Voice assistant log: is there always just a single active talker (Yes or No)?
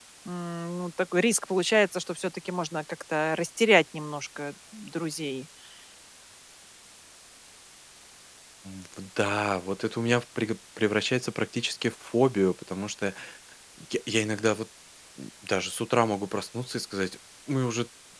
Yes